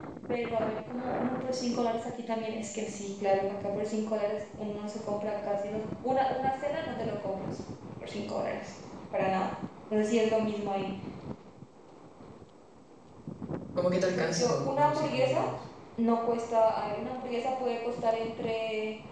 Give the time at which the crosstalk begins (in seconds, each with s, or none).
14.2 s